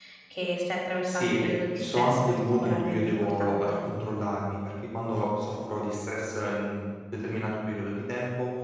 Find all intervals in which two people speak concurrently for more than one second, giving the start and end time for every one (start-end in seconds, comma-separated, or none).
1.1-3.8